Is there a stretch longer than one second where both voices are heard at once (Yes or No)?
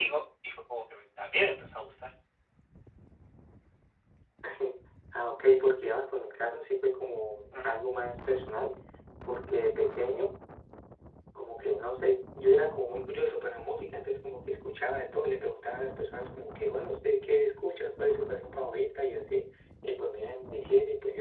No